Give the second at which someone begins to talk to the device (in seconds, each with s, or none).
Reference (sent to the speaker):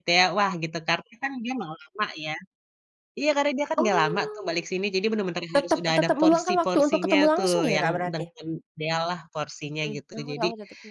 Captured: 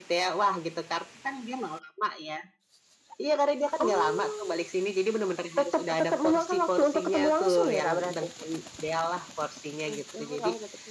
none